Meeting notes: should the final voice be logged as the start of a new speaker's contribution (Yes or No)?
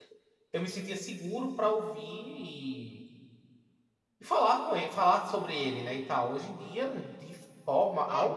Yes